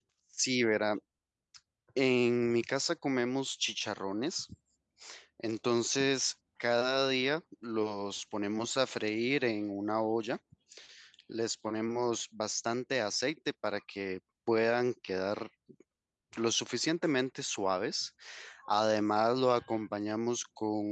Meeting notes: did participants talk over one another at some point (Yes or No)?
No